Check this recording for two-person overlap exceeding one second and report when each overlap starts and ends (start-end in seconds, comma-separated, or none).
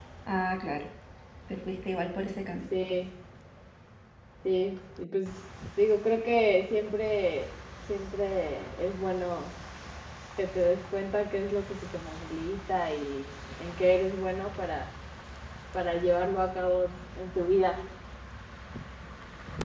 none